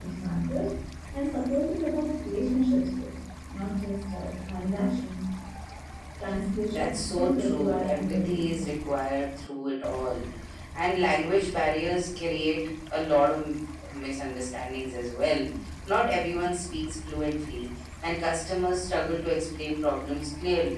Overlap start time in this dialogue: 6.7 s

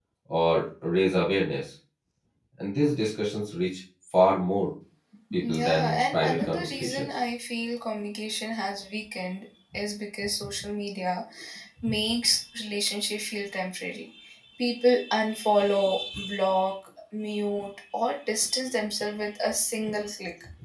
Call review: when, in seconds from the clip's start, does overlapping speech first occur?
5.5 s

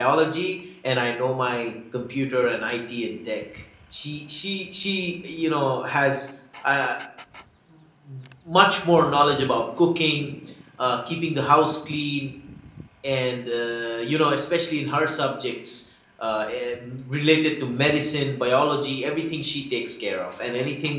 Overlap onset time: none

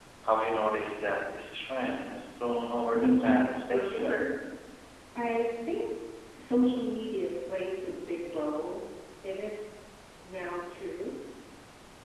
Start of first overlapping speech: 2.9 s

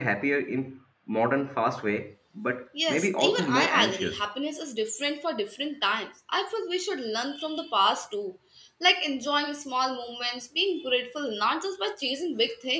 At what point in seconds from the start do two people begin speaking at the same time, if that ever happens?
2.8 s

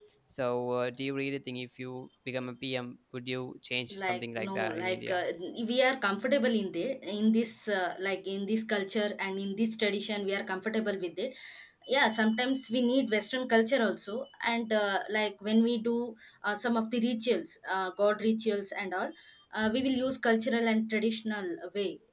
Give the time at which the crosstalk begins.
4.0 s

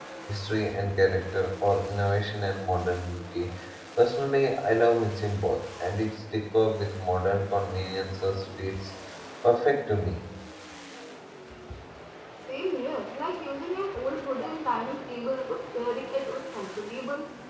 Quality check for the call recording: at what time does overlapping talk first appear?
none

